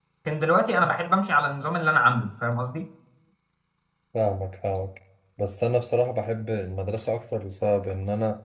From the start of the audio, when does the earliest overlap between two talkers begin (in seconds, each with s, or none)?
none